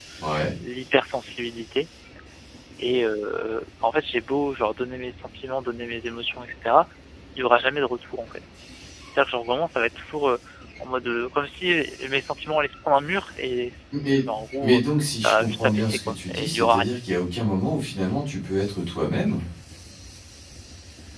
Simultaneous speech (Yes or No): Yes